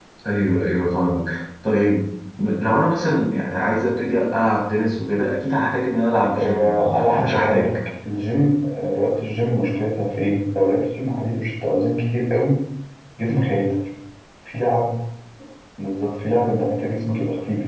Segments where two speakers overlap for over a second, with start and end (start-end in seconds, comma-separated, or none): 6.4-7.7